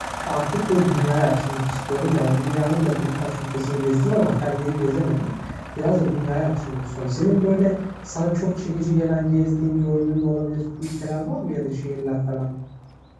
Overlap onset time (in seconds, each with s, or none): none